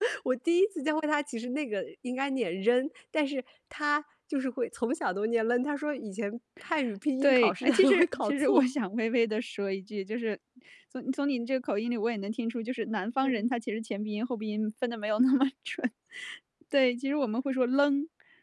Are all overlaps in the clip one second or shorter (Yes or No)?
No